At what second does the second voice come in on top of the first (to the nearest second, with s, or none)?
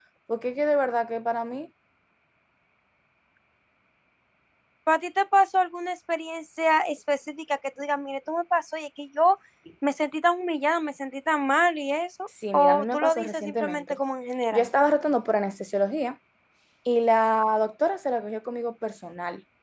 13 s